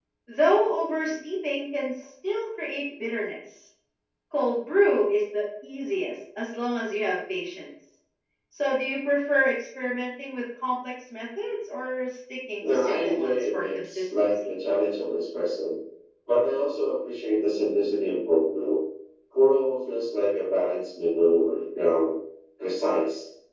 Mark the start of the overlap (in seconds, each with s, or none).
12.6 s